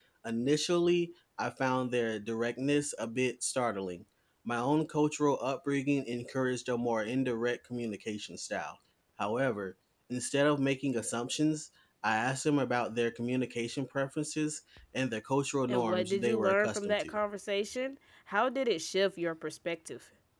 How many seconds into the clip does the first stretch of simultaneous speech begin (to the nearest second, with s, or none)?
16 s